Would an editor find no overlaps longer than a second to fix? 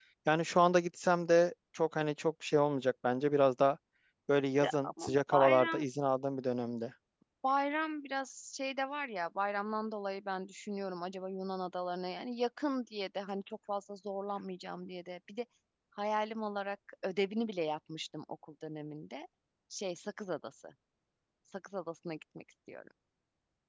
No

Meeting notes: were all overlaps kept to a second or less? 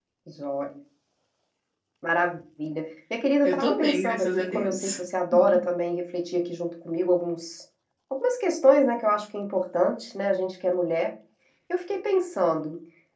No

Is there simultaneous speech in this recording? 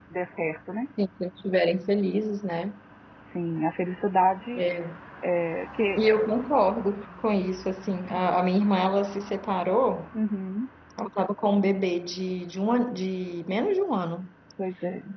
No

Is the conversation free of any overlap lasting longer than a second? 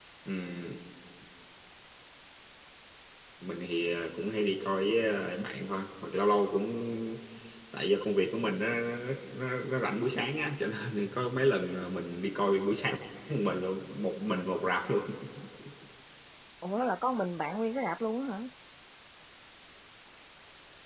Yes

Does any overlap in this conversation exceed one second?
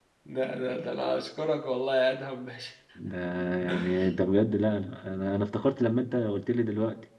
No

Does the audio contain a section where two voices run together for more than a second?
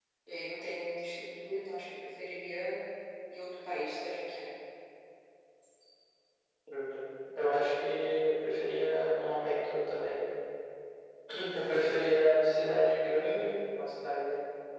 No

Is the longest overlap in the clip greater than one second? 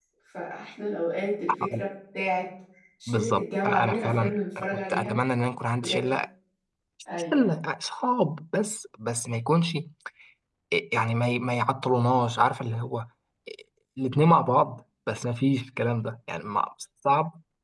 Yes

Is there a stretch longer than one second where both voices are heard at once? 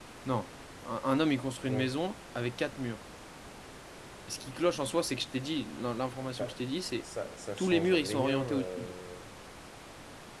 Yes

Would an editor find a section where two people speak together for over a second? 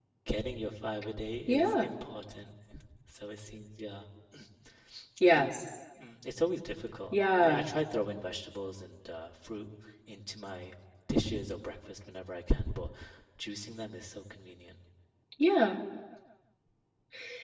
No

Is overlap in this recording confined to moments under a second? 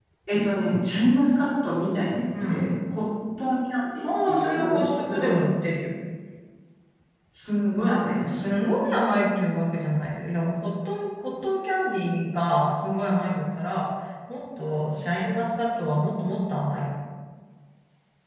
No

